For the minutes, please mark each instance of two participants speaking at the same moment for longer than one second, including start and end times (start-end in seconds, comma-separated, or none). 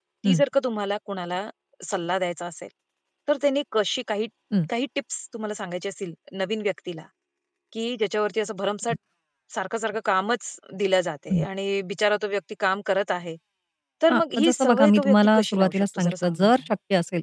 14.1-16.6